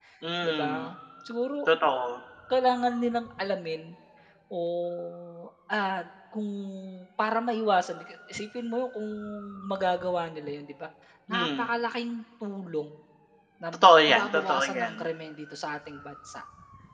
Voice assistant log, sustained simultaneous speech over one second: present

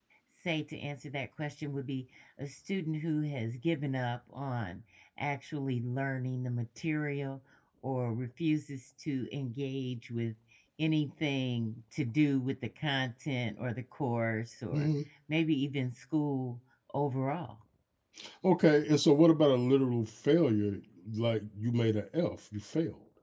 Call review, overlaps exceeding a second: none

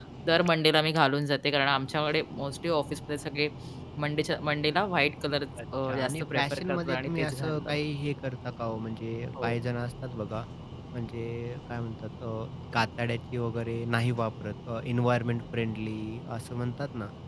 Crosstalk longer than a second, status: present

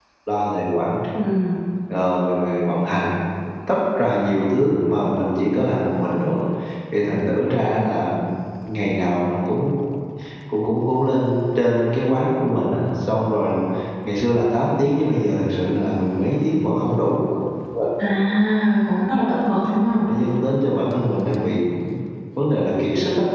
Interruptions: none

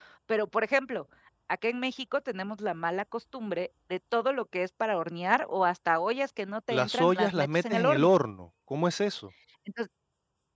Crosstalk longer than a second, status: present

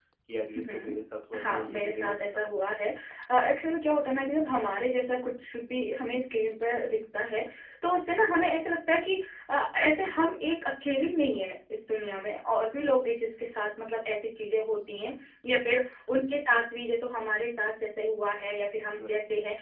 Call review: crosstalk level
present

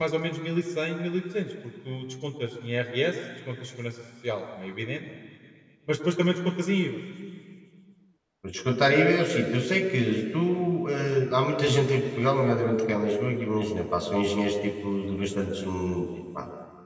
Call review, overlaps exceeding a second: none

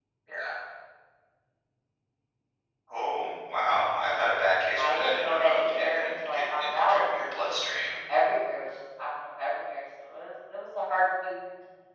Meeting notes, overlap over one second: present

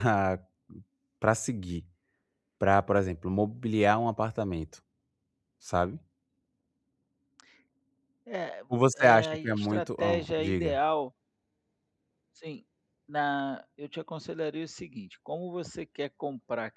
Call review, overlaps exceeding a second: present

